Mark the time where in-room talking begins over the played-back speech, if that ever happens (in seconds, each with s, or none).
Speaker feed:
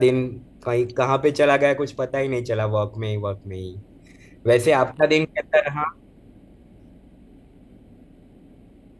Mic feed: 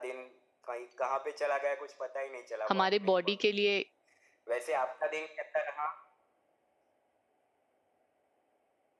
2.7 s